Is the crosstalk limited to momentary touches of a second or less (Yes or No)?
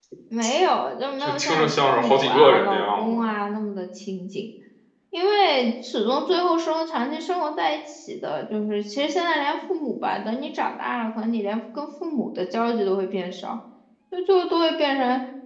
No